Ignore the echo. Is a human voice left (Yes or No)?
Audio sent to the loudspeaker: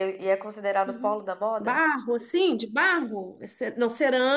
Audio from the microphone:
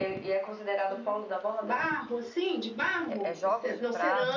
Yes